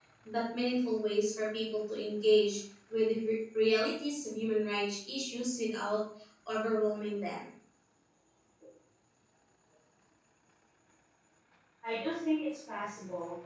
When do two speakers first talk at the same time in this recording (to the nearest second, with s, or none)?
none